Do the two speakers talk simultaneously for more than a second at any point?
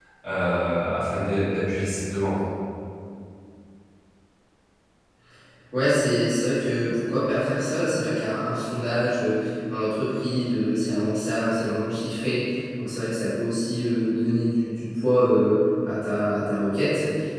No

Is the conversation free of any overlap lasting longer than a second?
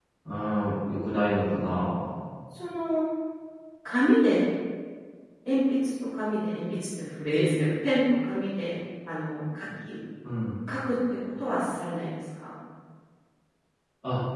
Yes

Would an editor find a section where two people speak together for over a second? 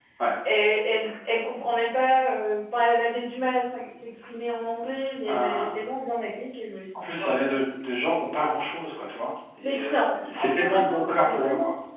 Yes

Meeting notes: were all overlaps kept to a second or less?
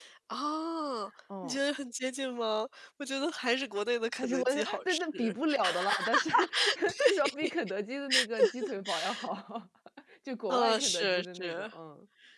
No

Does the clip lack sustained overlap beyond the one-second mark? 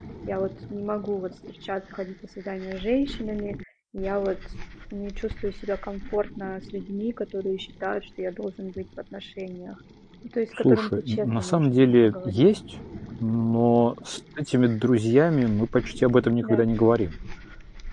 No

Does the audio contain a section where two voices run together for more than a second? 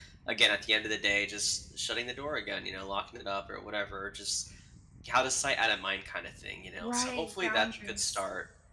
Yes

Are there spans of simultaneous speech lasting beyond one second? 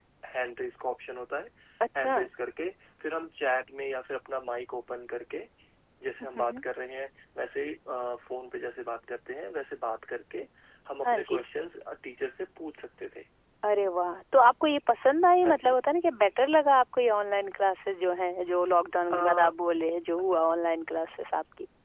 No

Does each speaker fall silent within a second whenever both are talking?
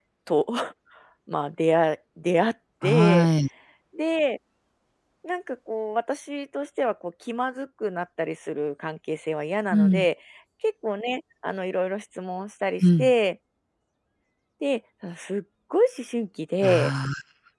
Yes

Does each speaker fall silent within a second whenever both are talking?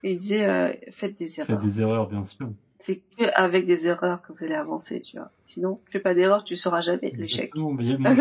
Yes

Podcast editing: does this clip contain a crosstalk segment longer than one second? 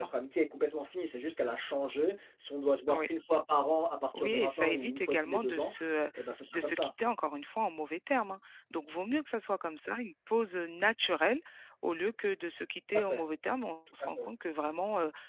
Yes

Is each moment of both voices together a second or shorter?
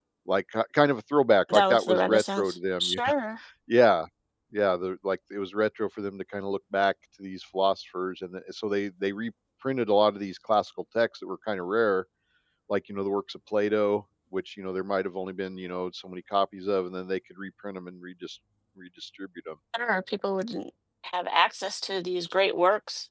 No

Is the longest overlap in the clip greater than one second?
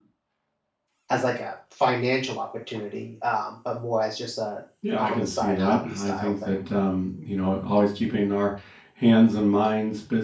Yes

